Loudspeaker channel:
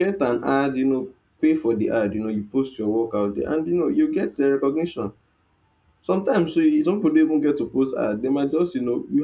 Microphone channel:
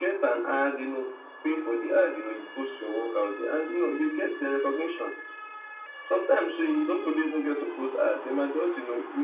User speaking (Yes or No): No